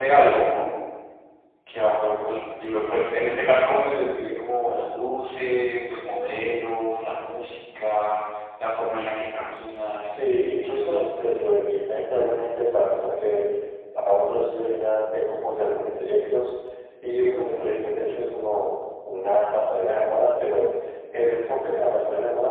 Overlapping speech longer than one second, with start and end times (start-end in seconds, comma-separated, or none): 10.0-11.4